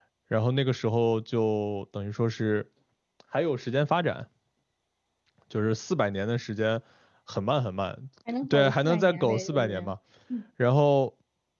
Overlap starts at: 8.5 s

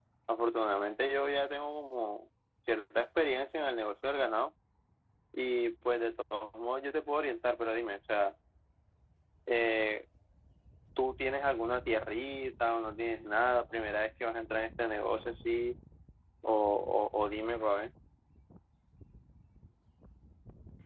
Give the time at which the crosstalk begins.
none

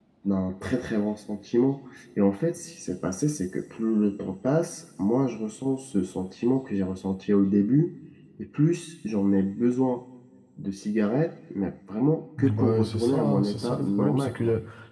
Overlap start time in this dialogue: 12.4 s

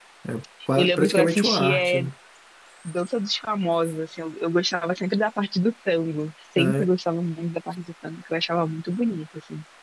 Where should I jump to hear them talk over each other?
0.8 s

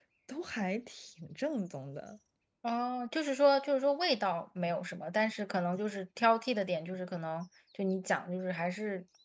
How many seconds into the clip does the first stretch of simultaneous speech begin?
none

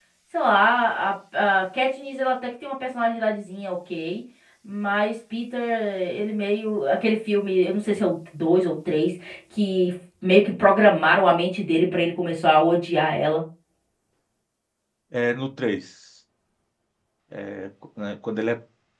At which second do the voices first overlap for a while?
none

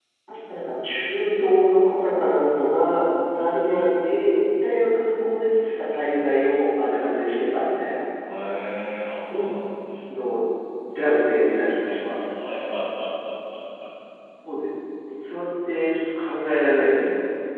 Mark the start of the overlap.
none

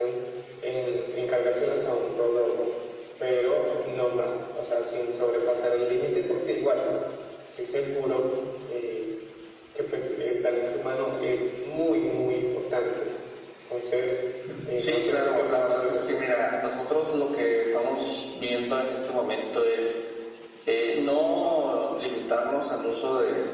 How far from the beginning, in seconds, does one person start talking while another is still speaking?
14.8 s

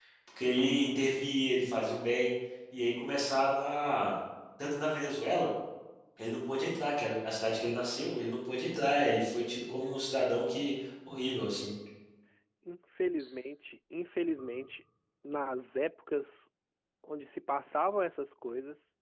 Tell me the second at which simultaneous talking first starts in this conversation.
none

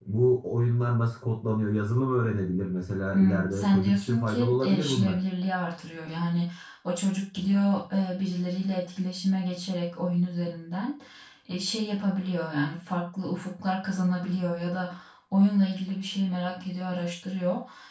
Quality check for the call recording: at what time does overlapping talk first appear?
3.1 s

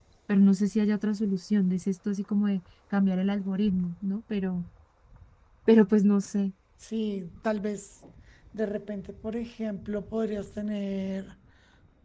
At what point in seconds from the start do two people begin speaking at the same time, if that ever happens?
none

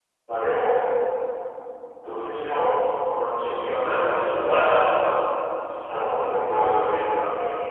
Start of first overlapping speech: 3.6 s

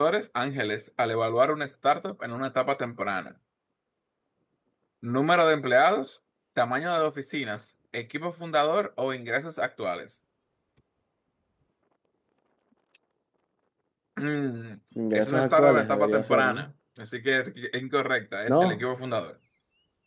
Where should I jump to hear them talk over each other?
15.1 s

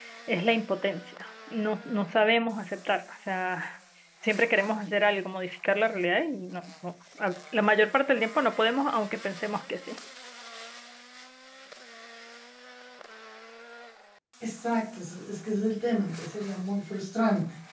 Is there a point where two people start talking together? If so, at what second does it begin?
none

